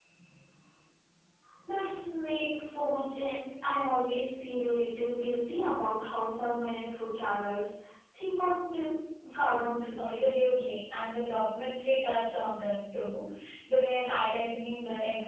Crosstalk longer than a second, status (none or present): none